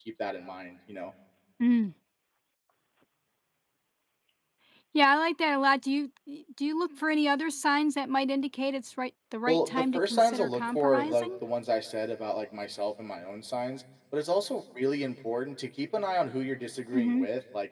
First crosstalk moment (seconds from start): 9.5 s

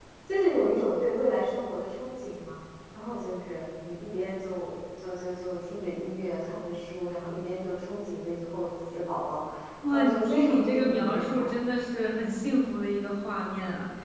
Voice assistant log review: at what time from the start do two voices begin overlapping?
9.9 s

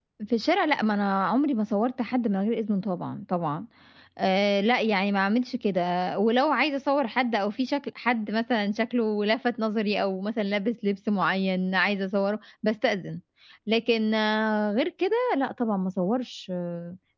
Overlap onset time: none

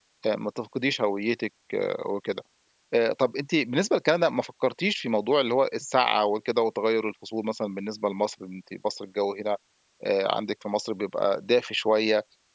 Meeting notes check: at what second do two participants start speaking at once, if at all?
none

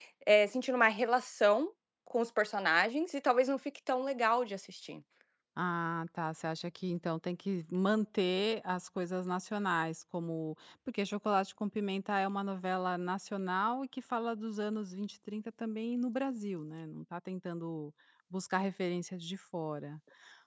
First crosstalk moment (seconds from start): none

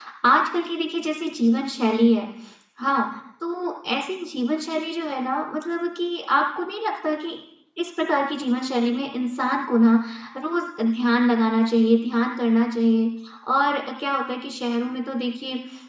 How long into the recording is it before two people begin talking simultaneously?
none

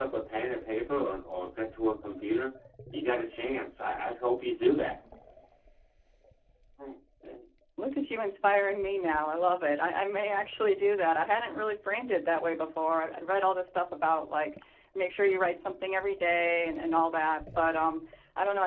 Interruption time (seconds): none

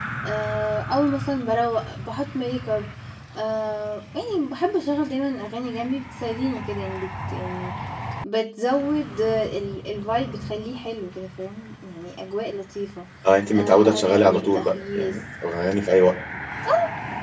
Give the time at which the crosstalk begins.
13.5 s

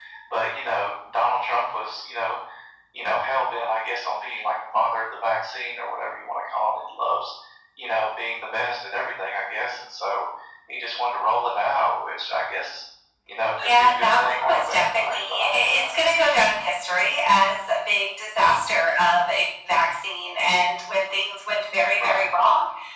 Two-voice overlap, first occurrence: 13.6 s

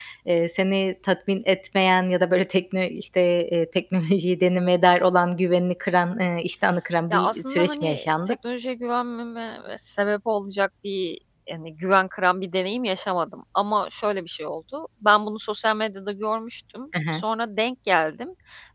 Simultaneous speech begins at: 7.1 s

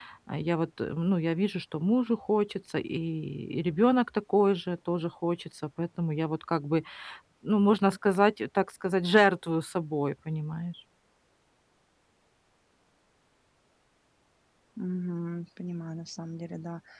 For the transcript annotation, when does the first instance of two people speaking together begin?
none

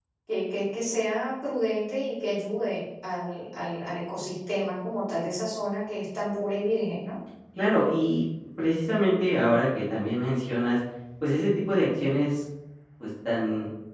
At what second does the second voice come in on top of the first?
none

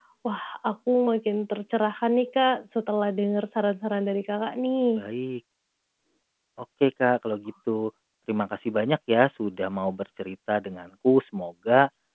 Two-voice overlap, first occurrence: none

